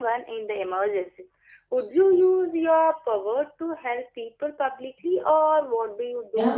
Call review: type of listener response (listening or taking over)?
taking over